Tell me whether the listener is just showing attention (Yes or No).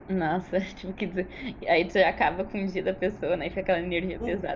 No